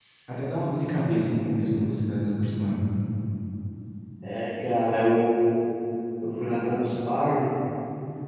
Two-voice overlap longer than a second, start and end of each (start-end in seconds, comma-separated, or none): none